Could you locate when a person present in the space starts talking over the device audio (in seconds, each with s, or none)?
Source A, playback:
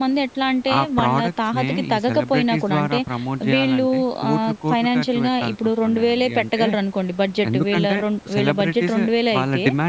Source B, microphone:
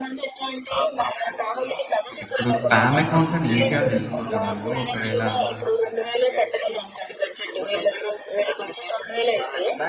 2.2 s